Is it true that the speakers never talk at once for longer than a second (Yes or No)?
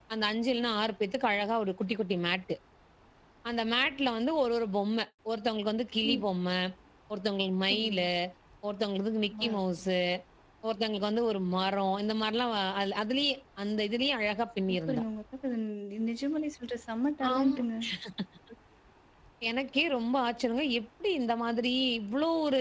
Yes